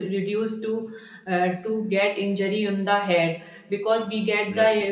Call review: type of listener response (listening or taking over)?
listening